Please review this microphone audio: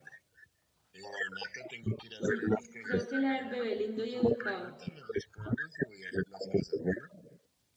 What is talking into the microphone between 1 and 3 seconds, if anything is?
both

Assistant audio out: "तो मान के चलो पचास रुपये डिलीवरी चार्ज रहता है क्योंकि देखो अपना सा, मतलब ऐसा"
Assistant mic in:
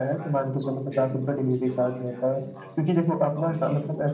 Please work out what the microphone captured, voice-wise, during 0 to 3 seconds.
both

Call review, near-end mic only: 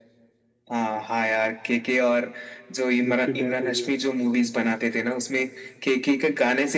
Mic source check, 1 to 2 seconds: echo only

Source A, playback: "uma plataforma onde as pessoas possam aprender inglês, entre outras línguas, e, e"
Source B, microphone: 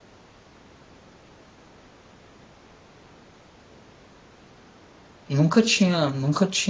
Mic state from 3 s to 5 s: neither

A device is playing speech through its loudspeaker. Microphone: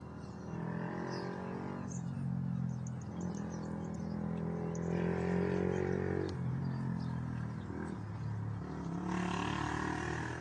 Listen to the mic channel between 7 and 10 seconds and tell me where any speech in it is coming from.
neither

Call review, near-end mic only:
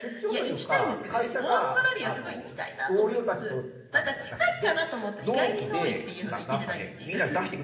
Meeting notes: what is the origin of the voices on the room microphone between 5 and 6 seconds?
both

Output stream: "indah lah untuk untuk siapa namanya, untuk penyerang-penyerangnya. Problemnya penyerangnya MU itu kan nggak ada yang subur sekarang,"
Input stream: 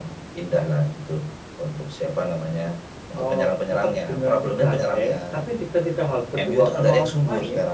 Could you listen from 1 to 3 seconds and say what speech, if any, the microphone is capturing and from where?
echo only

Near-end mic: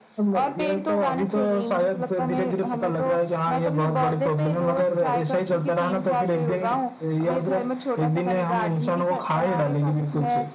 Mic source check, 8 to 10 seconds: echo only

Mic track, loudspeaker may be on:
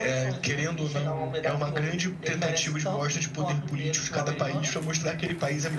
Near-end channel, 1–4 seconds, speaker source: echo only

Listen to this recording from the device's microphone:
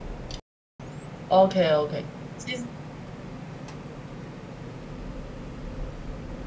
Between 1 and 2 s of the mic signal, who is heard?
user only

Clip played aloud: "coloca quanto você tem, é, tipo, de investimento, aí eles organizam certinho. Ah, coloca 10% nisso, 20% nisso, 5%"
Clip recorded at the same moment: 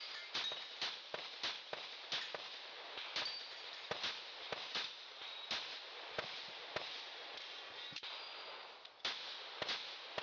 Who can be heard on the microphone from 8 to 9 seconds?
neither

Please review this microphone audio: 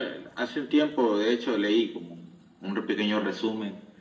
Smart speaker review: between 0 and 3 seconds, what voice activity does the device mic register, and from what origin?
echo only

